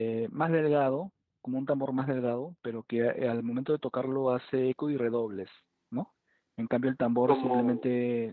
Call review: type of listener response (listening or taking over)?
listening